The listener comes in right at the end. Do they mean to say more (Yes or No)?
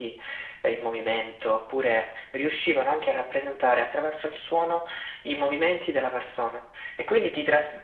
No